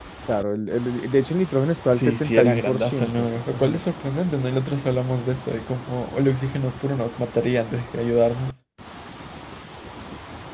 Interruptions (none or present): present